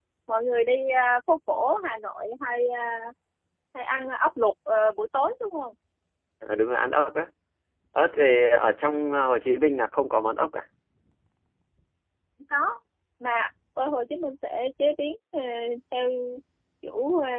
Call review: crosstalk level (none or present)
none